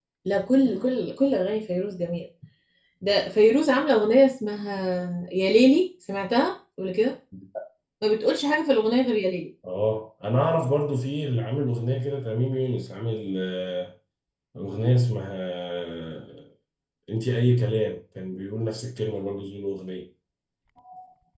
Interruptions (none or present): none